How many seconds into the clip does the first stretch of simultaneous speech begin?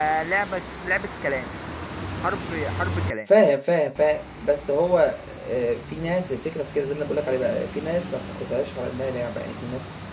none

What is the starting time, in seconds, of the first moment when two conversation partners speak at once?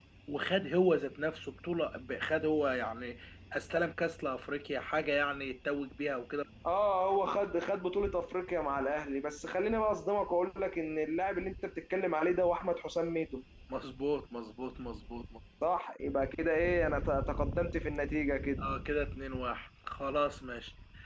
none

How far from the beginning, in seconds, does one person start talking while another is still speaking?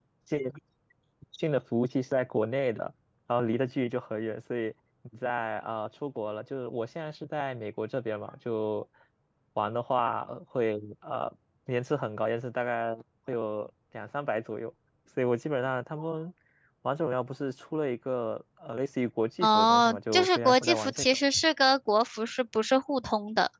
19.4 s

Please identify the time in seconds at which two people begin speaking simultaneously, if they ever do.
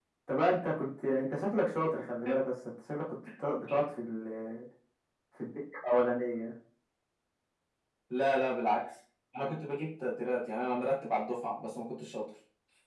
none

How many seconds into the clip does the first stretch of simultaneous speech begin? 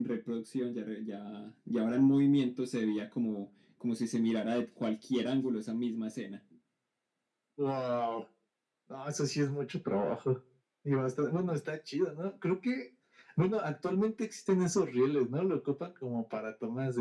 none

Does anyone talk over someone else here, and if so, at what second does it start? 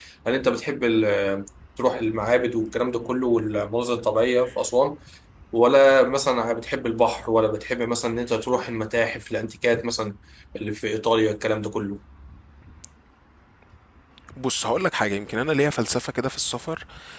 none

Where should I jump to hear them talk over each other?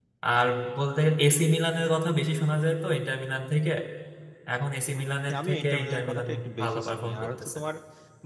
5.3 s

